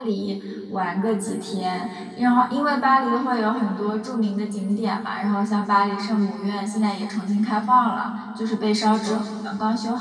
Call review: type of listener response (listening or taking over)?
listening